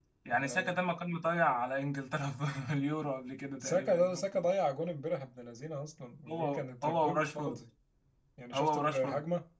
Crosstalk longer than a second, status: present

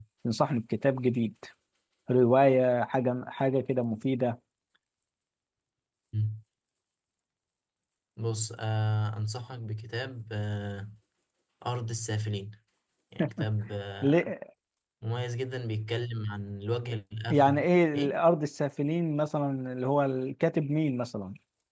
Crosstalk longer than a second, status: none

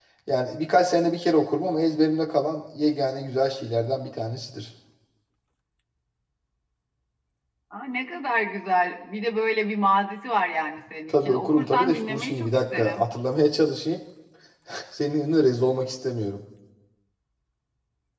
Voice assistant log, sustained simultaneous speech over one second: present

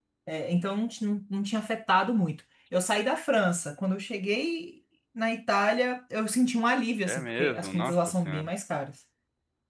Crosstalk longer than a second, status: present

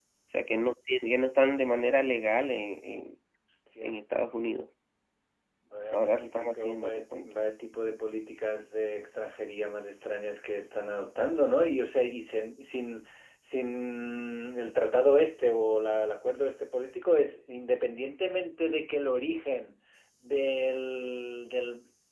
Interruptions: present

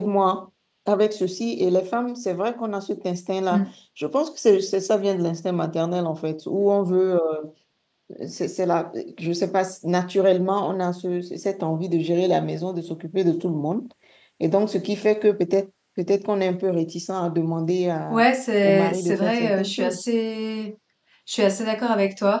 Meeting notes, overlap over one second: present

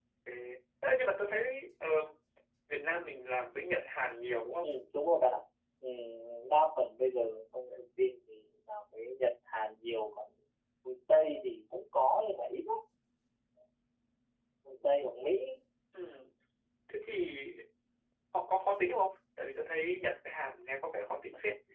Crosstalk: none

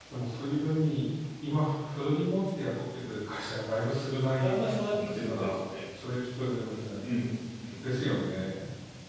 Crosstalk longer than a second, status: present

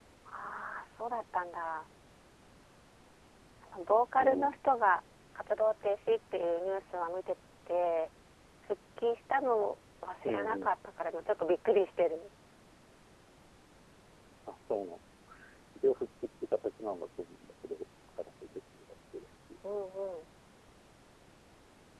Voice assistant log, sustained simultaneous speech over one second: none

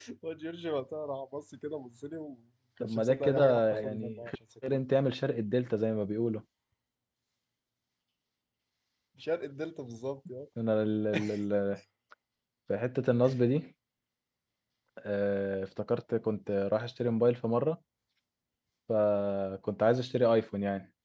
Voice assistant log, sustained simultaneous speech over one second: present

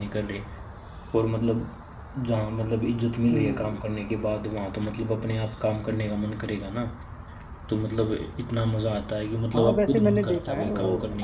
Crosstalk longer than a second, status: present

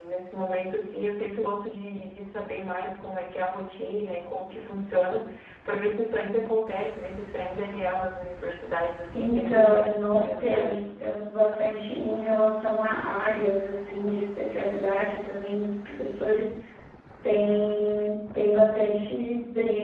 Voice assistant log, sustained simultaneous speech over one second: present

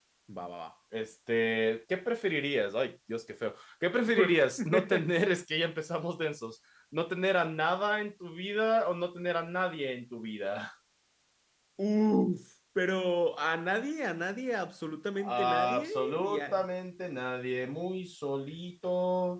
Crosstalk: present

